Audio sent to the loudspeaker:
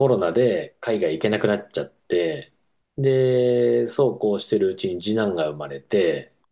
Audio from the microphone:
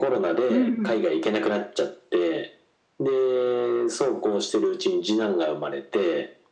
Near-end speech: present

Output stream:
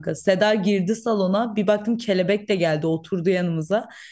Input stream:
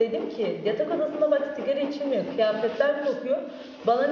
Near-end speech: present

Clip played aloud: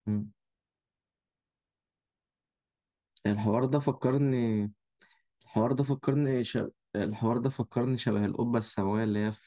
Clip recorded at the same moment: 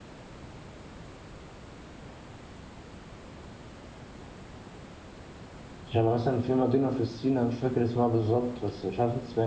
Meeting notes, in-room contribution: present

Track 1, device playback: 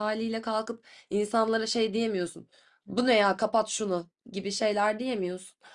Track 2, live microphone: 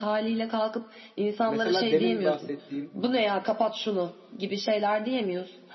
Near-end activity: present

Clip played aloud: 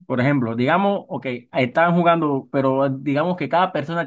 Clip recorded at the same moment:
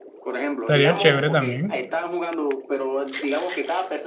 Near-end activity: present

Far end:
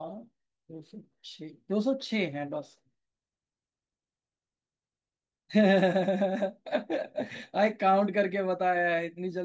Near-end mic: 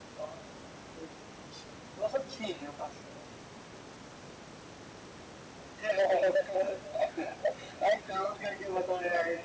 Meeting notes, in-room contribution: none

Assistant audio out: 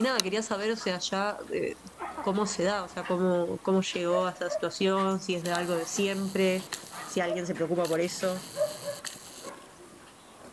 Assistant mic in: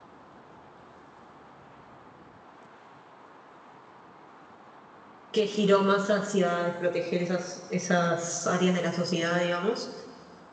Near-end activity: present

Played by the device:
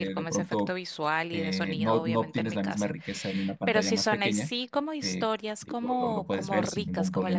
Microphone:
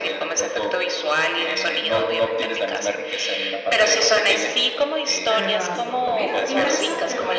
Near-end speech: present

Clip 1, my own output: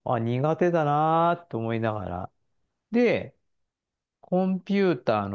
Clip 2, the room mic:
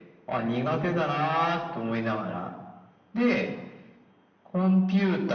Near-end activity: none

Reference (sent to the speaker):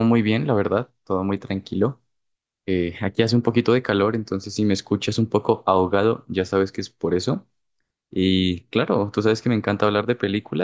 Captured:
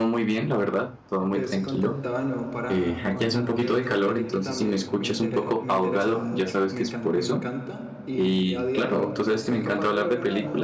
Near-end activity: present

